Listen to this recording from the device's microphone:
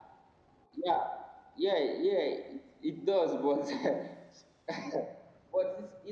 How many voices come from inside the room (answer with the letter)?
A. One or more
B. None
B